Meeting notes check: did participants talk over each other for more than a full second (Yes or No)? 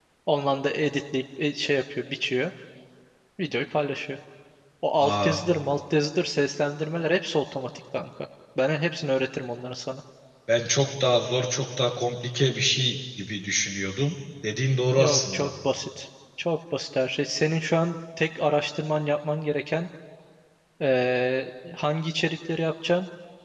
No